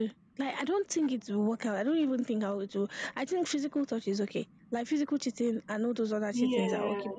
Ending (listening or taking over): listening